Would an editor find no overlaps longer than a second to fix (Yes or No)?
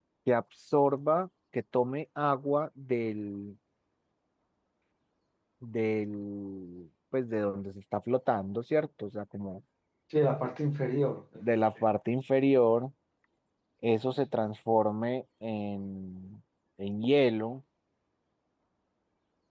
Yes